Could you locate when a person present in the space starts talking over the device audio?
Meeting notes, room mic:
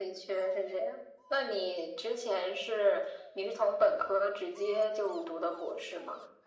none

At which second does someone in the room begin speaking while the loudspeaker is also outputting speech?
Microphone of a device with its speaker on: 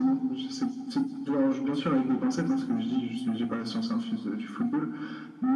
none

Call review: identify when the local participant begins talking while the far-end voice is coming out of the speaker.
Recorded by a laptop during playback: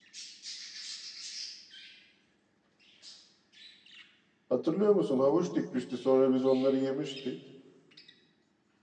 4 s

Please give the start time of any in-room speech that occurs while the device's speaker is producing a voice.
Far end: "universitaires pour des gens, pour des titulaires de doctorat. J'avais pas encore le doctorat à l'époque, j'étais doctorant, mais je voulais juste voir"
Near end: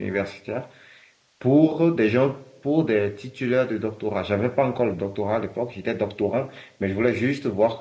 none

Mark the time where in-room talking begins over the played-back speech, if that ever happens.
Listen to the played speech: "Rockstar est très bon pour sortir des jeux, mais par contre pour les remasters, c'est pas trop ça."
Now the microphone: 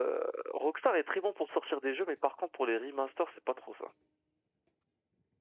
none

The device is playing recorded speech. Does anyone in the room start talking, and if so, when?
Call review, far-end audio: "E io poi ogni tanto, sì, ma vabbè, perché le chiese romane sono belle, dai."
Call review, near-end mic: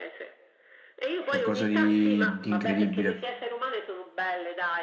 1 s

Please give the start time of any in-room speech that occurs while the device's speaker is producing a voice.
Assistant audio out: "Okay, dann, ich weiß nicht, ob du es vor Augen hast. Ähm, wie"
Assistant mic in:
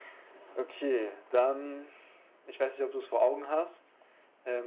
none

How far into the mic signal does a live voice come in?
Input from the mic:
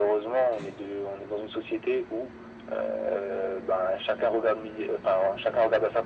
none

